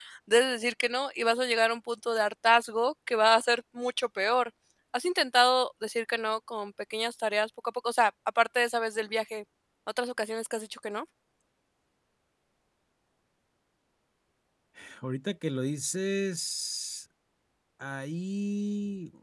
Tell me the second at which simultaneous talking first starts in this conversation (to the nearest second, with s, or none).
none